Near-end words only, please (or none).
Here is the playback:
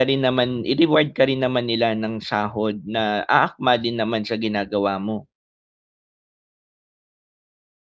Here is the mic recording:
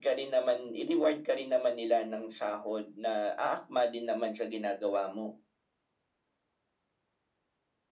none